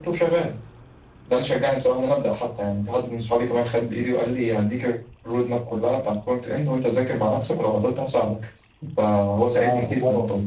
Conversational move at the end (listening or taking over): taking over